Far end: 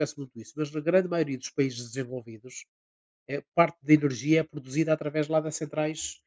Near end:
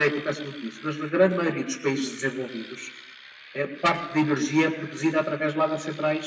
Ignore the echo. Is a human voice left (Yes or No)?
No